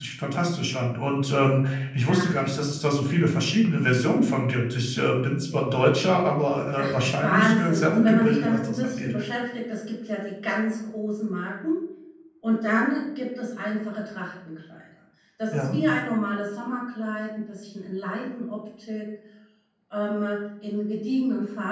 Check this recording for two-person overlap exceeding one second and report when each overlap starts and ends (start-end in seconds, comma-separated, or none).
6.8-9.1